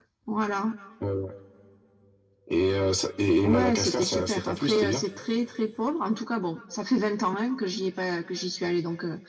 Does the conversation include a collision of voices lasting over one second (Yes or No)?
Yes